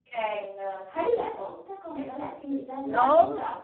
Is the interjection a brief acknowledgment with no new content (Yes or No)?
No